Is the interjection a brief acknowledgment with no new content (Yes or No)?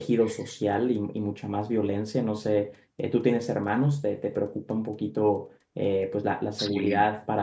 Yes